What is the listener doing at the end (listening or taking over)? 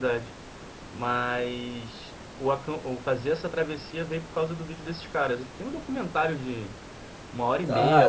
taking over